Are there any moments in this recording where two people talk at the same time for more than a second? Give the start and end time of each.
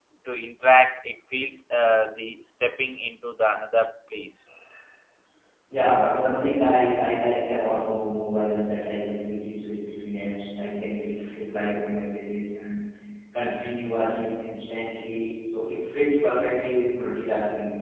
none

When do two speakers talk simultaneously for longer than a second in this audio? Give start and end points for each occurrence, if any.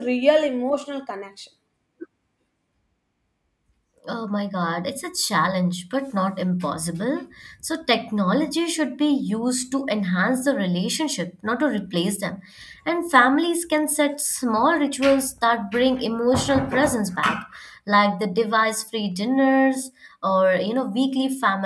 none

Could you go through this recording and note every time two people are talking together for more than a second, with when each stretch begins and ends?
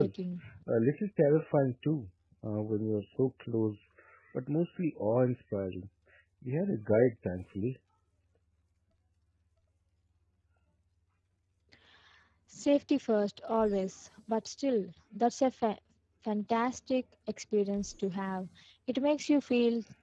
none

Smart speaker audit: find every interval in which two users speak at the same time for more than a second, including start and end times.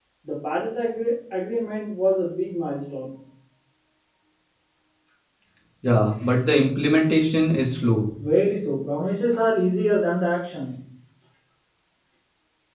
none

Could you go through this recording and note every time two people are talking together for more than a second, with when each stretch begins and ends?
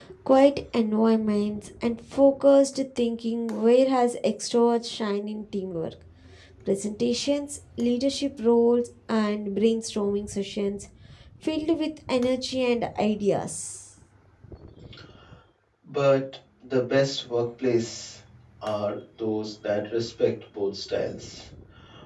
none

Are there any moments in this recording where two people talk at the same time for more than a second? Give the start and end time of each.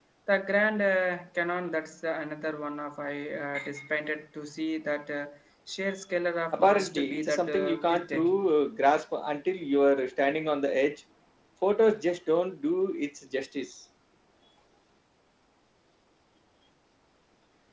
6.5-8.5

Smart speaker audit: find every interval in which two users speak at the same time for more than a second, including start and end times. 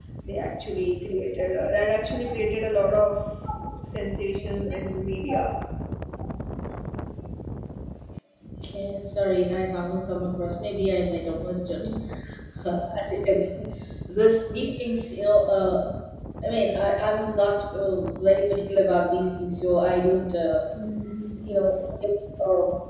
none

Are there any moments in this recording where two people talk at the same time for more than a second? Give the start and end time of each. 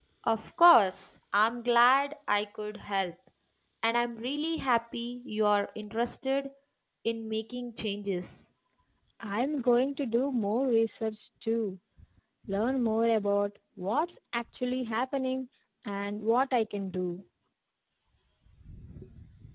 none

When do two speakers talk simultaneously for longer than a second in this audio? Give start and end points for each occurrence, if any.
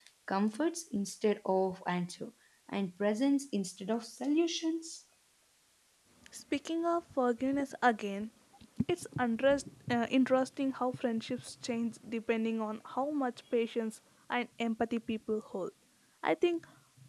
none

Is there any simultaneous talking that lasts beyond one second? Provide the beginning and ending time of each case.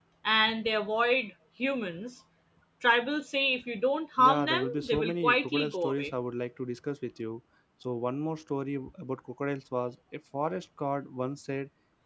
4.2-6.1

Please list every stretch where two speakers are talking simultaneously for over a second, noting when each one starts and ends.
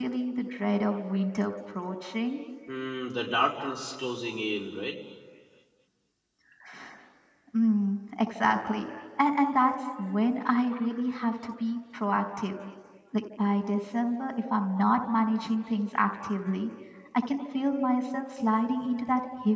none

